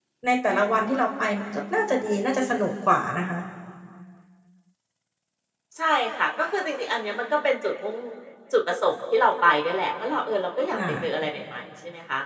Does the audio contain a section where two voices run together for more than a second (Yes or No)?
No